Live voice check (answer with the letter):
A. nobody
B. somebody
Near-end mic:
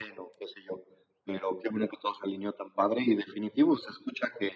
A